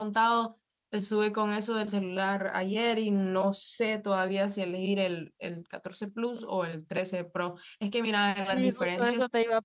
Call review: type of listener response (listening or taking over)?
taking over